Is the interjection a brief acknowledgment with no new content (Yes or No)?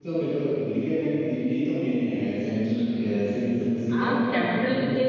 No